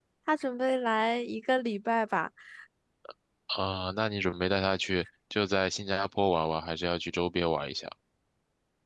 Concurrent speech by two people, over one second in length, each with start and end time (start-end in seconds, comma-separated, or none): none